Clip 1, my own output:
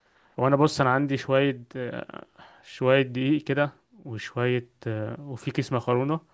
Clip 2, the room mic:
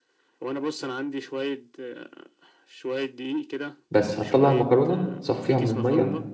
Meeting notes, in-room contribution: present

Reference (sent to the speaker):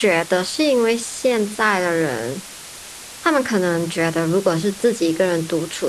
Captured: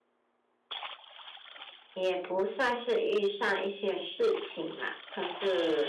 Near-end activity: present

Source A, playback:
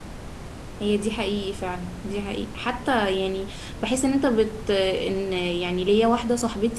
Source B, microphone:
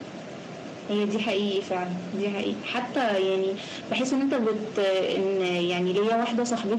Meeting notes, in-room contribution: none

